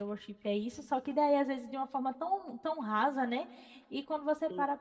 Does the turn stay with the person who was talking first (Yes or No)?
Yes